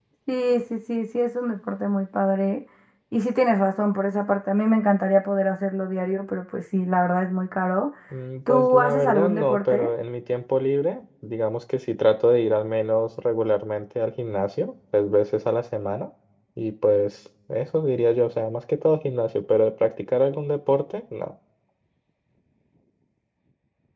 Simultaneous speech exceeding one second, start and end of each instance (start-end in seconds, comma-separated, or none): 8.5-9.9